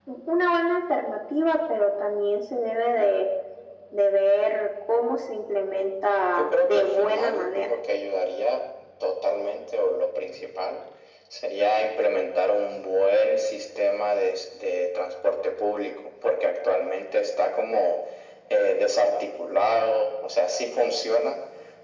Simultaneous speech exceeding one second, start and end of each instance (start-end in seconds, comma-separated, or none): 6.4-7.7